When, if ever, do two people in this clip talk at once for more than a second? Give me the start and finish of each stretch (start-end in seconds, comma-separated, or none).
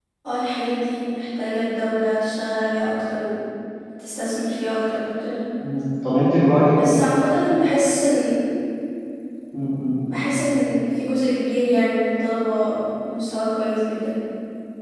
none